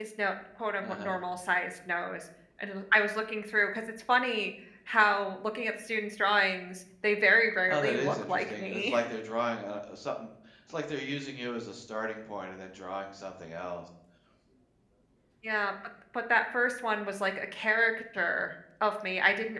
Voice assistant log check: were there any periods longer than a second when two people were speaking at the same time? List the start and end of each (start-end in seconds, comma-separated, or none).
7.7-9.0